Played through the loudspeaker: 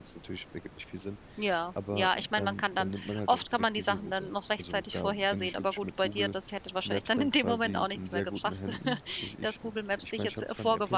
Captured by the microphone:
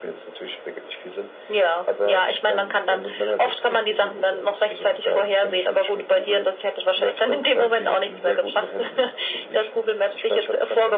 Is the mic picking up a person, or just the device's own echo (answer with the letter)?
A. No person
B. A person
A